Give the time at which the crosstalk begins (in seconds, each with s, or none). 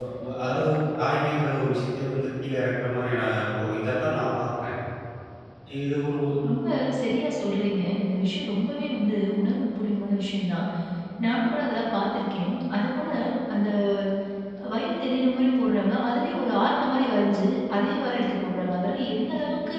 none